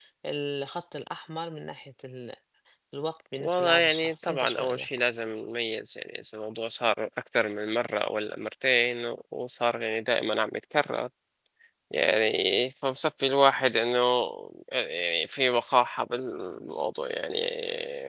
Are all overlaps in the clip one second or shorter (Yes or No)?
No